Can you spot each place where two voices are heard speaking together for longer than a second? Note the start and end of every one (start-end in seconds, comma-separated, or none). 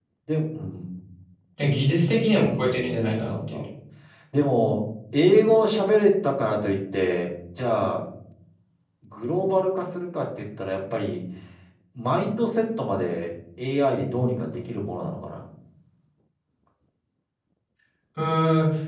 2.4-3.6